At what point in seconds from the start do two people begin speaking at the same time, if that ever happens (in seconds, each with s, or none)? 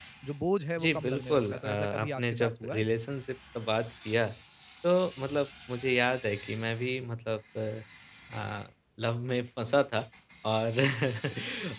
0.8 s